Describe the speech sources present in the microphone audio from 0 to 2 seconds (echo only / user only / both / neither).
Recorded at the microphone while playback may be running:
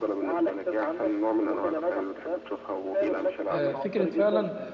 echo only